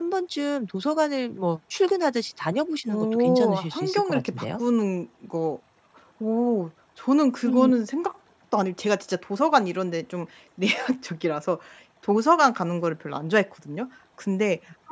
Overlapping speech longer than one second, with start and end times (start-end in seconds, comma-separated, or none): 2.9-4.6